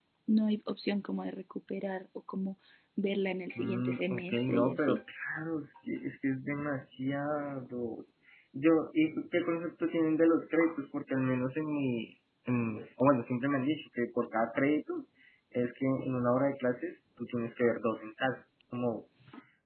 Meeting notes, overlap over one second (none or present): present